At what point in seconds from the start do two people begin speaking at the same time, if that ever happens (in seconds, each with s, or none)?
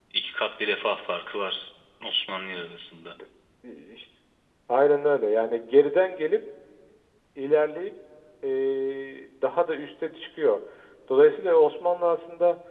none